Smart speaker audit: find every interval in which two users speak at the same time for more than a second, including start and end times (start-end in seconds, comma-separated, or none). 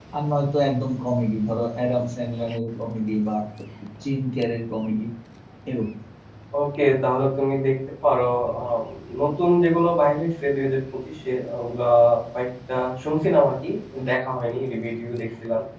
none